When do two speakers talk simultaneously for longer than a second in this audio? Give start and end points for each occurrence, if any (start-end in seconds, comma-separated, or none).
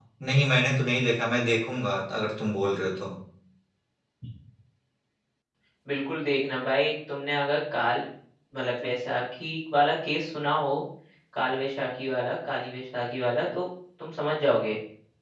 none